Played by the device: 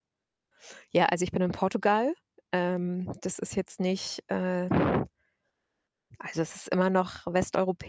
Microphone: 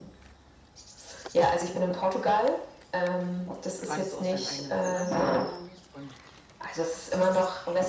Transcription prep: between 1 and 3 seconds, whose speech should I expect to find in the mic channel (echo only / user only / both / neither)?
echo only